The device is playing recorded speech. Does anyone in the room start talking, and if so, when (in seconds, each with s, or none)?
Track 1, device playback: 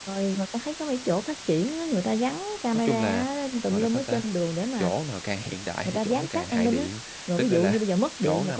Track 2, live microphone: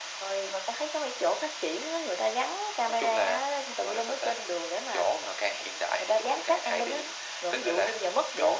none